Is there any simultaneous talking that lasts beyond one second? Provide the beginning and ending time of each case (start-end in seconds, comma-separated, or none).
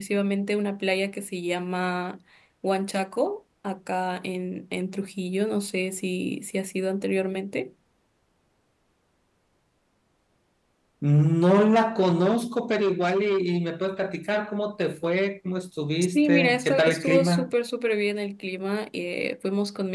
16.1-17.5